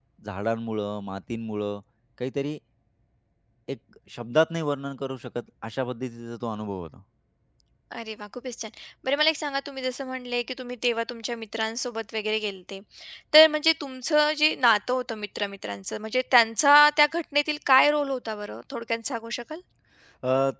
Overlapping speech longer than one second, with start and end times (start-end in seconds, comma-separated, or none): none